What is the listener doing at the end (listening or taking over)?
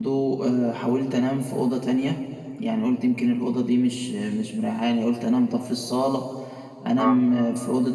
listening